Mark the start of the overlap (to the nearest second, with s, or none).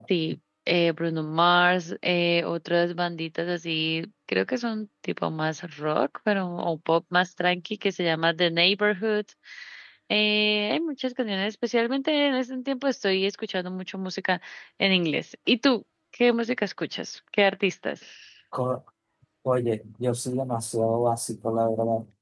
none